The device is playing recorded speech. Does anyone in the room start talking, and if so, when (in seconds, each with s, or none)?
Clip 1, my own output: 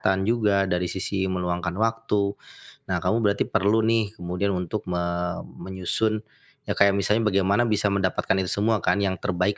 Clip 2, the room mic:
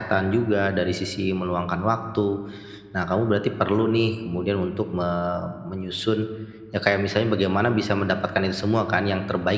none